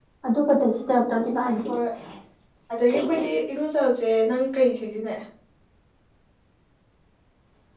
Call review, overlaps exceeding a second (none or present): none